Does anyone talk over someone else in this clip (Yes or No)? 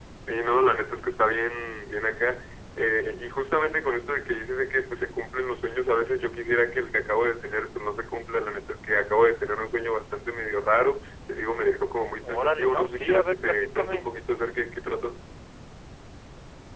Yes